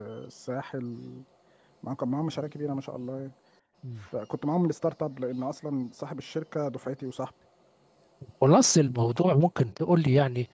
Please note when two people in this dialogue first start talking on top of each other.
none

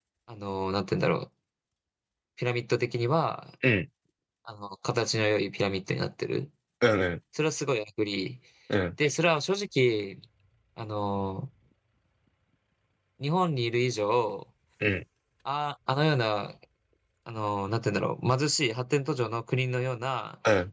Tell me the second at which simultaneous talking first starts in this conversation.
none

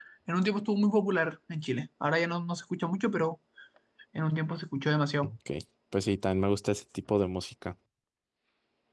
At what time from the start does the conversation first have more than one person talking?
none

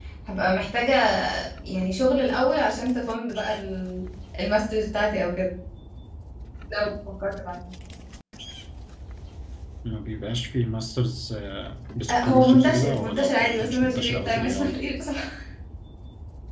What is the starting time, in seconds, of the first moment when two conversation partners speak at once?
12.1 s

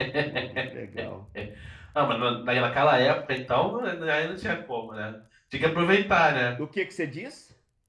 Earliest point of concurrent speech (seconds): none

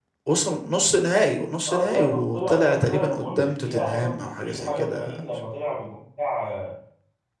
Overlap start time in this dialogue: 1.7 s

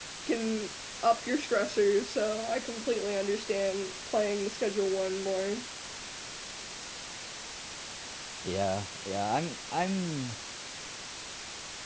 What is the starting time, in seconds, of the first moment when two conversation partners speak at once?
none

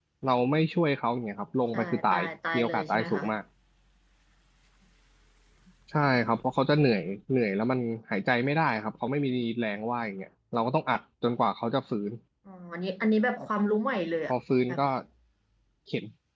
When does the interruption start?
1.7 s

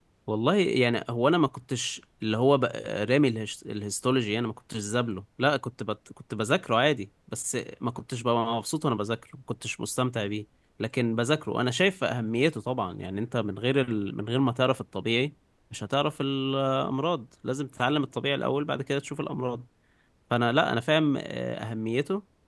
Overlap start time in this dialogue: none

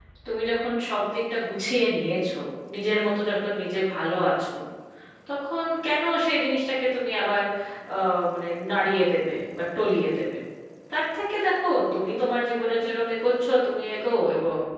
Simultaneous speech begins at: none

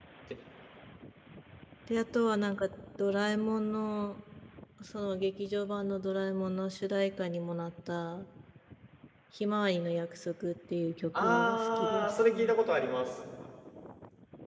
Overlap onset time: 11.1 s

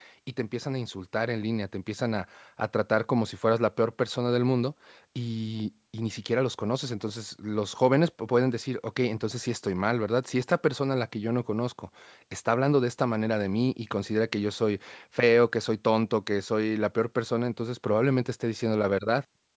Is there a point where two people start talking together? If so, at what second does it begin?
none

